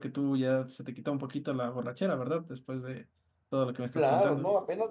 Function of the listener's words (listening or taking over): taking over